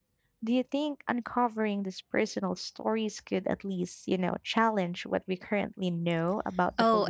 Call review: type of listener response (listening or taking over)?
taking over